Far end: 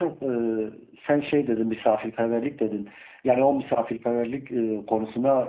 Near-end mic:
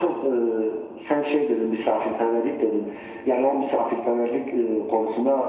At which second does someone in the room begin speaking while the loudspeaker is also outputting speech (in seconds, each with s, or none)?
none